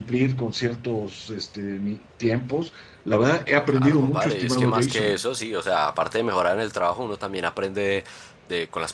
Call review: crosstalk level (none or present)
present